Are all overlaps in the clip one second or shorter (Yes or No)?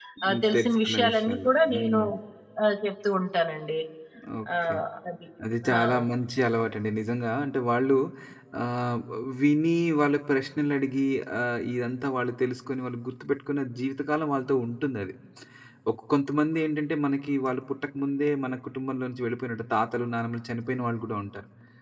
No